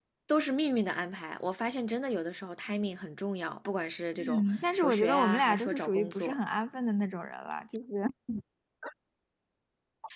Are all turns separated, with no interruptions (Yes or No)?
No